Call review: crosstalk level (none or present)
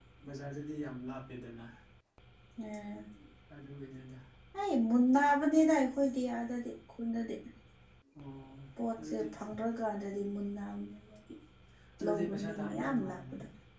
present